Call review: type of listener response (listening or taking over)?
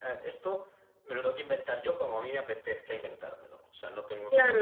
taking over